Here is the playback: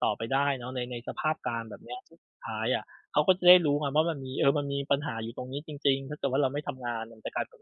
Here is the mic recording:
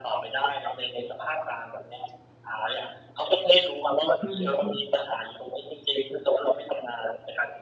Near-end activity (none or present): present